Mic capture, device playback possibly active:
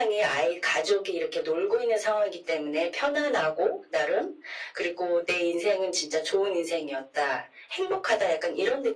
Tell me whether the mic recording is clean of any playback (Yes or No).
No